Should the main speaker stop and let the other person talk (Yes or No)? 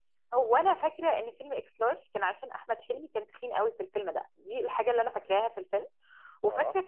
No